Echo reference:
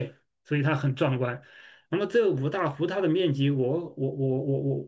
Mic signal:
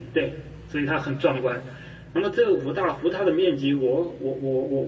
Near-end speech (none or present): none